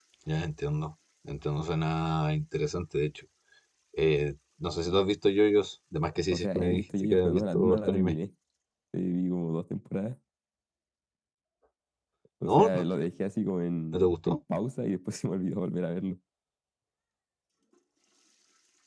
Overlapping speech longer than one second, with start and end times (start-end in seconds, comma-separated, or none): 6.3-8.2